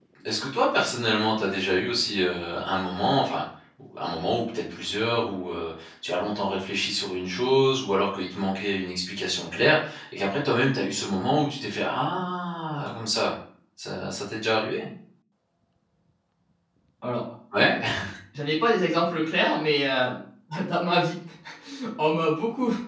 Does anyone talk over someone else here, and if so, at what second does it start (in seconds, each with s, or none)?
none